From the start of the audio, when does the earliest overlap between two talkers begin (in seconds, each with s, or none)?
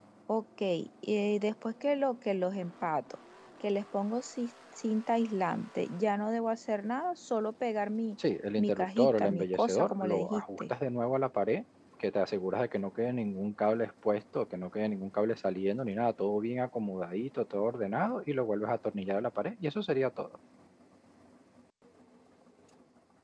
8.6 s